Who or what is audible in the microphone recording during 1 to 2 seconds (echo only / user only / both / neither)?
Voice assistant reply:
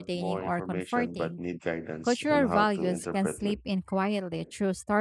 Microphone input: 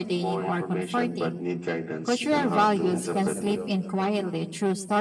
echo only